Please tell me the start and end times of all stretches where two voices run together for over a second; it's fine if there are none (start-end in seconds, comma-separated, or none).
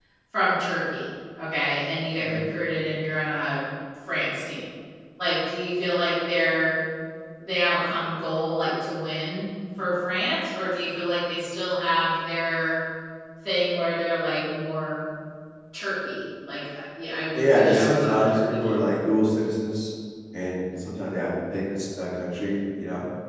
17.3-18.8